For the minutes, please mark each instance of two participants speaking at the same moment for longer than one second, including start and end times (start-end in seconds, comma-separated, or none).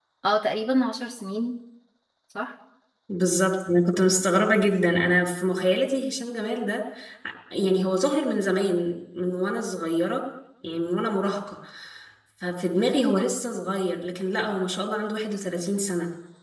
none